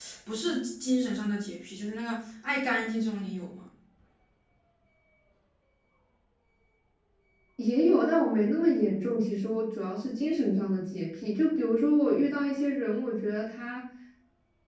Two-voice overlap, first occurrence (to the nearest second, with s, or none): none